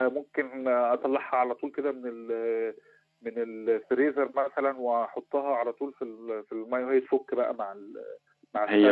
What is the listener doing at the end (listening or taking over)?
taking over